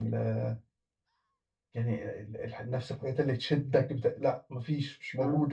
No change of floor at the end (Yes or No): No